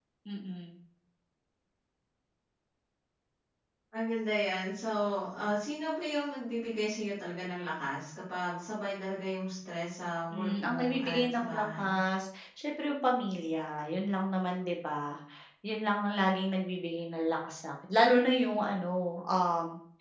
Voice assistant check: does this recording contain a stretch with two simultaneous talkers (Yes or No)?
Yes